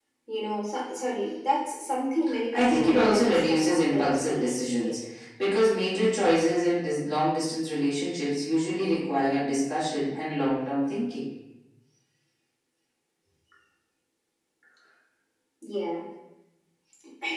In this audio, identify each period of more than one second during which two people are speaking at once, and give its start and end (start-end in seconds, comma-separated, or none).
2.5-5.0